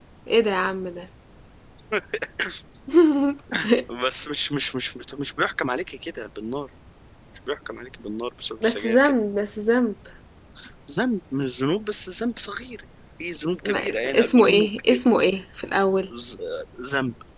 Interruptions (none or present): present